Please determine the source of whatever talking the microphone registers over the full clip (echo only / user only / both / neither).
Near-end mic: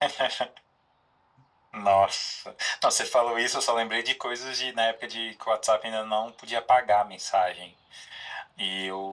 echo only